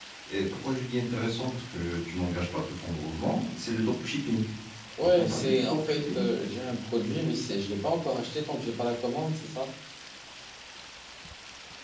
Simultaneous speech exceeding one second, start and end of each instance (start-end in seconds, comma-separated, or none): 5.0-6.2